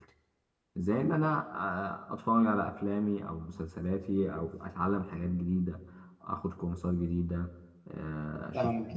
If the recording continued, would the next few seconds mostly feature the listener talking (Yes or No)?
Yes